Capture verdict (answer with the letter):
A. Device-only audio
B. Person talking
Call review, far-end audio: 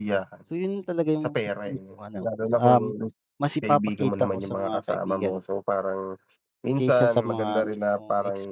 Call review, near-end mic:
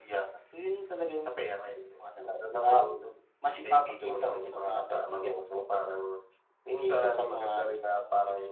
A